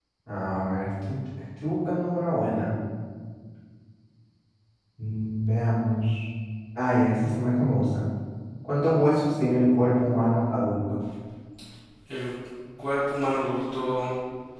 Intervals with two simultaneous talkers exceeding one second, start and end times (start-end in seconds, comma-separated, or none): none